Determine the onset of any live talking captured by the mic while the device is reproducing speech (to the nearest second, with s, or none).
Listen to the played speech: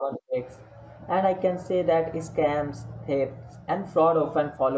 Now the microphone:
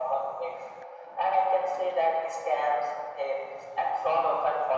none